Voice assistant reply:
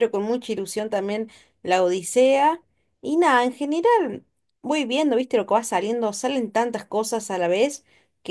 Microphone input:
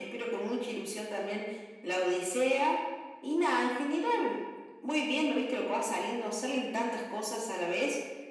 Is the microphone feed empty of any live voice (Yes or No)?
Yes